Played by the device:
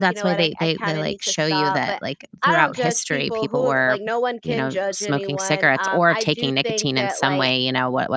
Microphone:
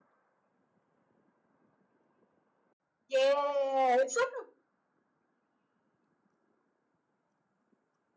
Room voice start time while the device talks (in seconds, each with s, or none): 3.1 s